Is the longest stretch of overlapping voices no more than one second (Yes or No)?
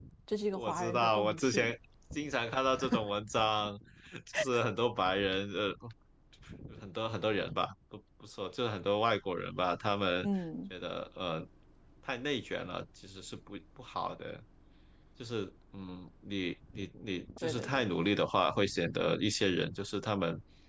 No